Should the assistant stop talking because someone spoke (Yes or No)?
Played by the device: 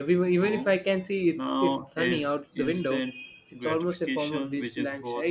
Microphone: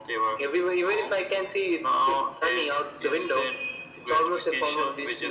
No